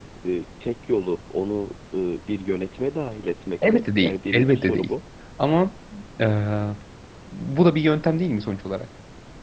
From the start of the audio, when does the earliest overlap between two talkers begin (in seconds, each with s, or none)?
3.6 s